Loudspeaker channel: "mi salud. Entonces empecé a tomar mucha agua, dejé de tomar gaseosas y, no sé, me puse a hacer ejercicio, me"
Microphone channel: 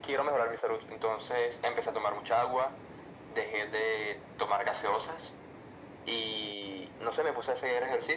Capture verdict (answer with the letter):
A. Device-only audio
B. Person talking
A